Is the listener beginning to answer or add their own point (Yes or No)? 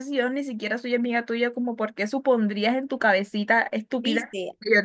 Yes